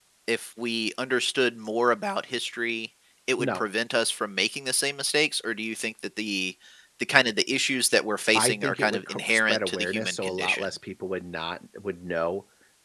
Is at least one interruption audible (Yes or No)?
Yes